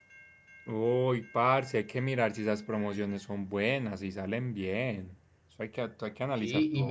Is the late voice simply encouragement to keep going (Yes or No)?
No